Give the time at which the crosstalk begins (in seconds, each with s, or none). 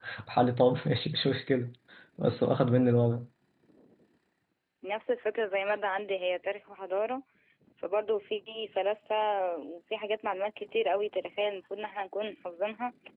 none